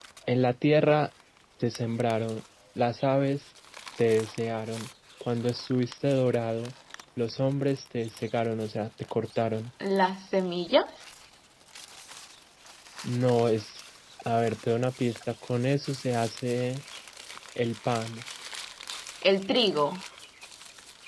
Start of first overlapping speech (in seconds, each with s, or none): none